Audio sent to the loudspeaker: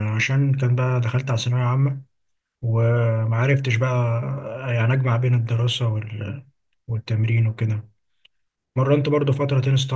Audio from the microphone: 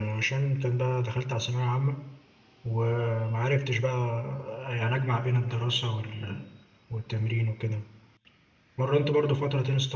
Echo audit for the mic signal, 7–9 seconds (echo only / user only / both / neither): echo only